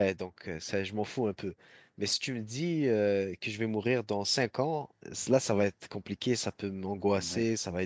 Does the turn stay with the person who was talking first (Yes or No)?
Yes